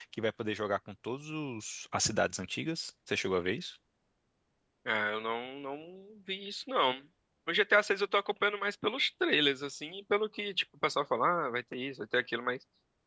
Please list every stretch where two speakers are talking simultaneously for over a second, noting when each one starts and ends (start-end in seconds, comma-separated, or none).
none